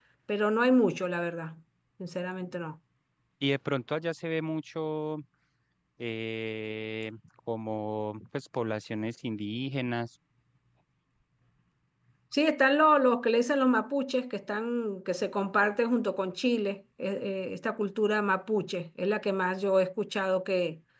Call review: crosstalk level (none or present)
none